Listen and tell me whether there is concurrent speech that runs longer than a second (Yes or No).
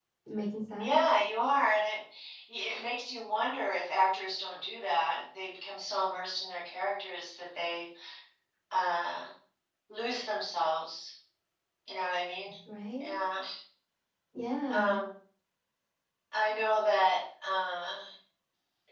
No